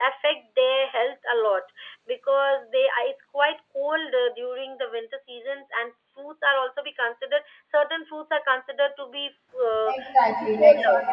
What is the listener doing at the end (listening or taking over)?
taking over